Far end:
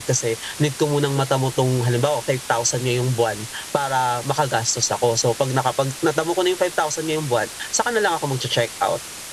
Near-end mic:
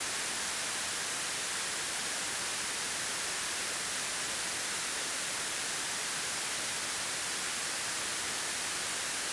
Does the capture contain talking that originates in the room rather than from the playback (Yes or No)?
No